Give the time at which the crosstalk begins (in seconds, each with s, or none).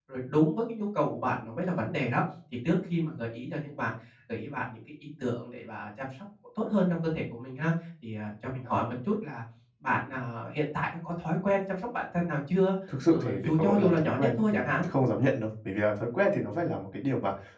12.9 s